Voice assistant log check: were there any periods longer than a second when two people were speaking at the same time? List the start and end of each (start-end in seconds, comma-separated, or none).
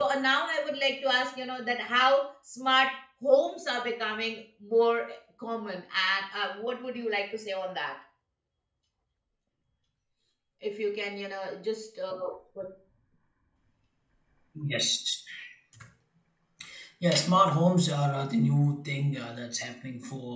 none